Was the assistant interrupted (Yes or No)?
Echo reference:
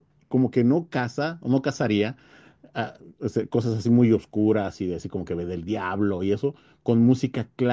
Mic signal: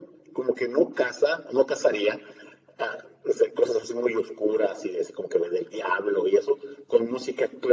No